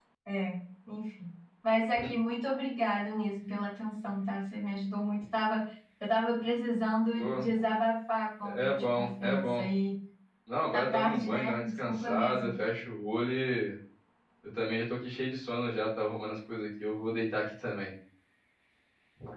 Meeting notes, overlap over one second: present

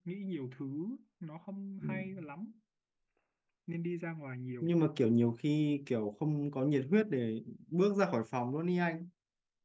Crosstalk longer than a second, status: none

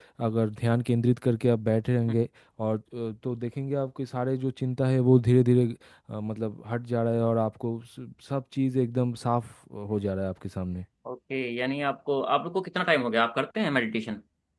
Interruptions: none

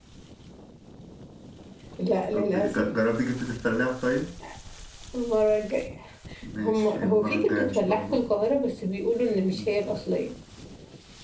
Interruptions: present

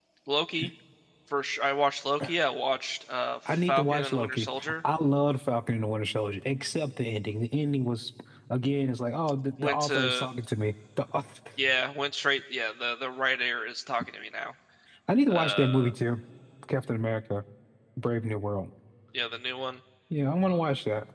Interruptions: present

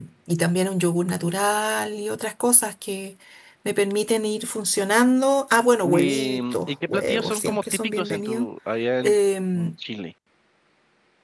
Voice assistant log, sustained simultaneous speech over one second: present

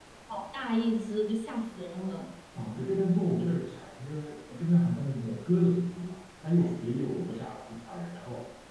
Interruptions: none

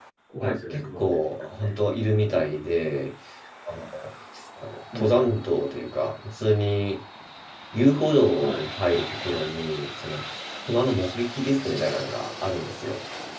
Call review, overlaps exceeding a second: present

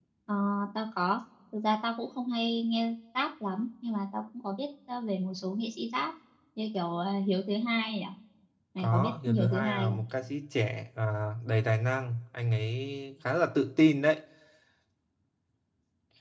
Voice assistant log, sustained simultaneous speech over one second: present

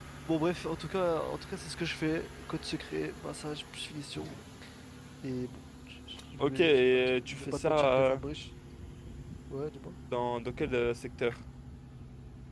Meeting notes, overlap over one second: present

